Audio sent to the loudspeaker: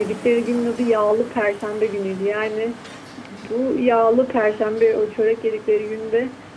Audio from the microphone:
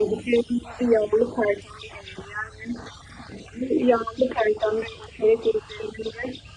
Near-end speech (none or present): none